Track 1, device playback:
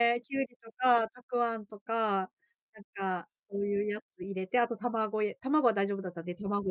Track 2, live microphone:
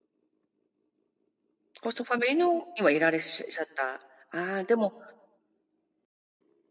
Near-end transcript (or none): コストファミリーのにはいられっしゅしゃった。あ、でも、